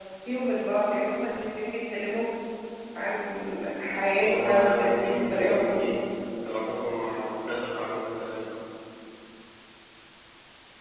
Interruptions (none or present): present